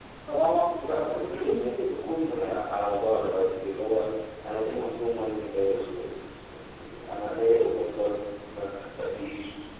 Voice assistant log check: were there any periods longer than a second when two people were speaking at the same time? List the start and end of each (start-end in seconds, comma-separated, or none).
0.9-2.3